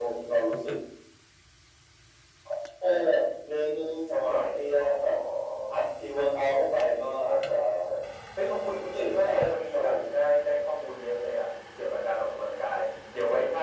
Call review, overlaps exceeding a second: present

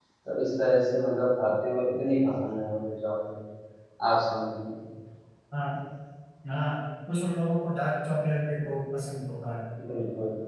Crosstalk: none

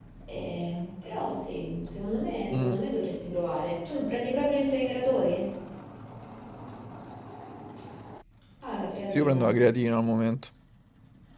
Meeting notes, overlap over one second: none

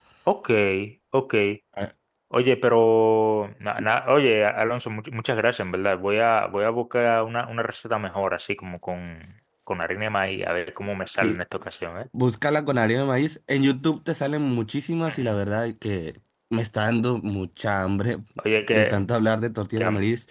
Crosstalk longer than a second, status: none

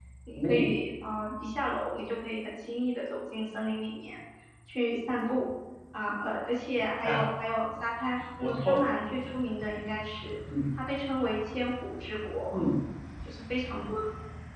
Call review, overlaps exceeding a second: none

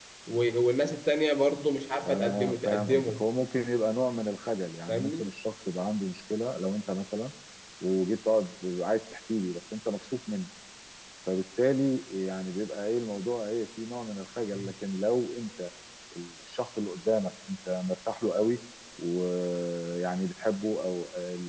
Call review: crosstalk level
present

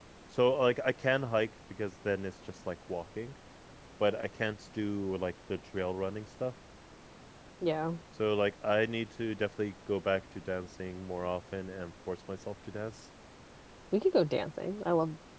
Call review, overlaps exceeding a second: none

